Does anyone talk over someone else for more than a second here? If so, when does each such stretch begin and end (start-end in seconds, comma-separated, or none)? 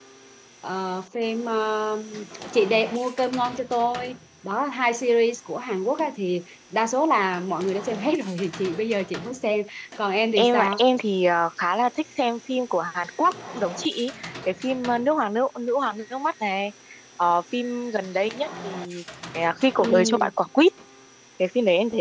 none